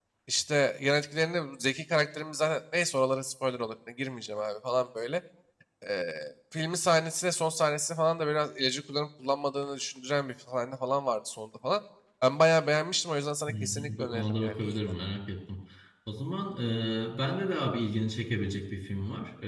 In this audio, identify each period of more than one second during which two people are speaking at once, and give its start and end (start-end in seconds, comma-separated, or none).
13.5-14.8